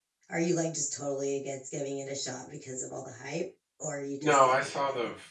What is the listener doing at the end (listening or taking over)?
taking over